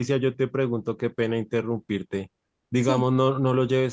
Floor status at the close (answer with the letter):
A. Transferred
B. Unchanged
B